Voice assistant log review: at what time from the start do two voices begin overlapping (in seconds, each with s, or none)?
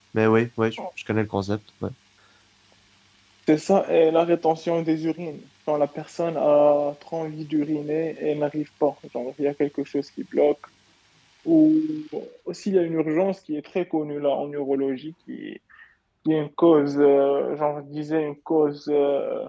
none